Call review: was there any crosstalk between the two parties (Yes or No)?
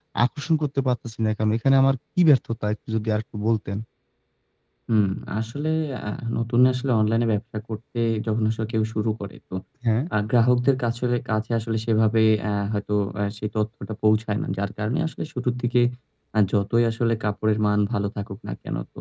No